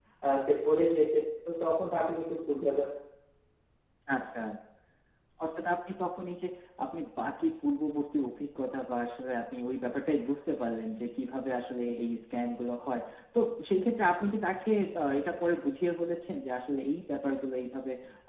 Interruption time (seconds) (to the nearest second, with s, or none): none